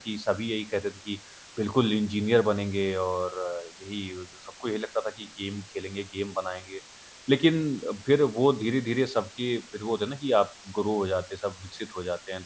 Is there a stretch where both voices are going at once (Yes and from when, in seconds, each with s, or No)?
No